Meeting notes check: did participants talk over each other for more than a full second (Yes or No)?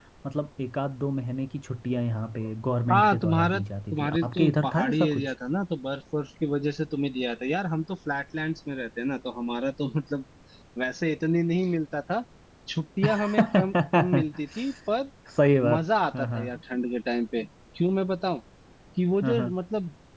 Yes